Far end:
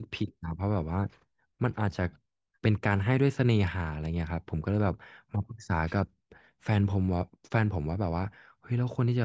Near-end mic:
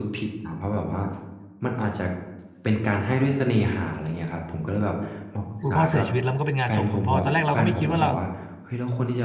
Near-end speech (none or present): present